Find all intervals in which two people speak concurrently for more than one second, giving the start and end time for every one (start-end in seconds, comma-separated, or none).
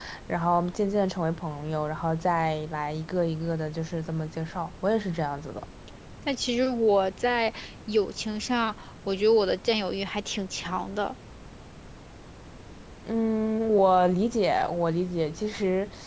none